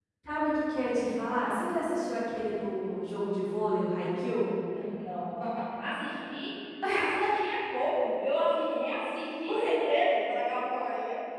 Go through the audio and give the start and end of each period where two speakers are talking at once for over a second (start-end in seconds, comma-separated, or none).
none